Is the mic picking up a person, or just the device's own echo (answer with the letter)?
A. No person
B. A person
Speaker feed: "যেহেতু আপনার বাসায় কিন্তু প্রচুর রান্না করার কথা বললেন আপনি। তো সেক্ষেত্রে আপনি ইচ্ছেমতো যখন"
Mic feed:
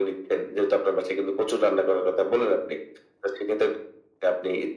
A